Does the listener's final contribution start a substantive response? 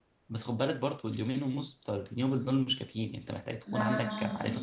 Yes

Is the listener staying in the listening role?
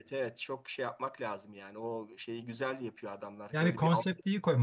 No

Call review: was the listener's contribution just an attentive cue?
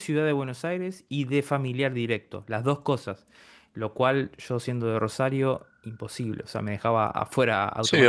No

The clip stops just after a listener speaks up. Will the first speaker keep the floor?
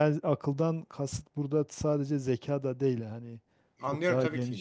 No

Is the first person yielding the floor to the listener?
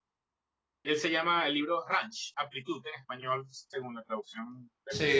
Yes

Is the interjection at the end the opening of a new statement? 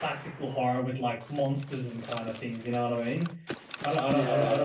No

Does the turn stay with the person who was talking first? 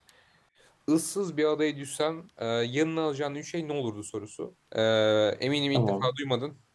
Yes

